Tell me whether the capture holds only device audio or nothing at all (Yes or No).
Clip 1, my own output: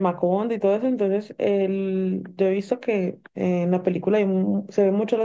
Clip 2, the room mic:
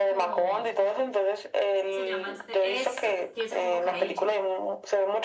No